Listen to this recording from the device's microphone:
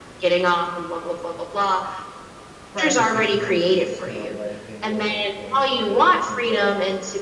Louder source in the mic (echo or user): echo